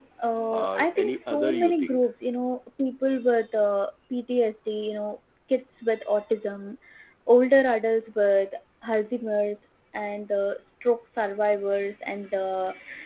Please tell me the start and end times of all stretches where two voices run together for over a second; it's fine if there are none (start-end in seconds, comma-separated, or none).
0.5-2.0